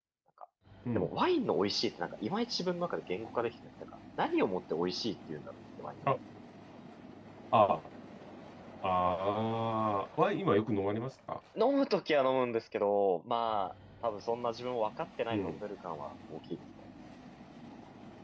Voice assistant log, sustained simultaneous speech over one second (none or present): none